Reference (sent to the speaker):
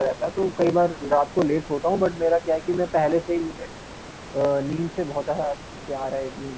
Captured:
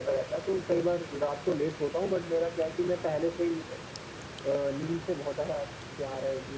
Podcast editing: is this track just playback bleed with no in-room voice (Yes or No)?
Yes